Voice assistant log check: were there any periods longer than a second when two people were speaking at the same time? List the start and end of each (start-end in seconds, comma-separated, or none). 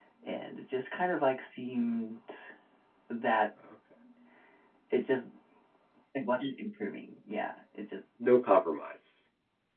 none